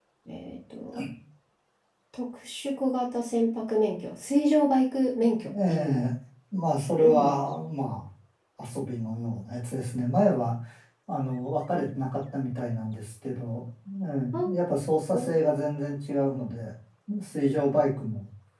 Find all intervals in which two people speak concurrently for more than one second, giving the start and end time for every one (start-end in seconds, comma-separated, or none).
none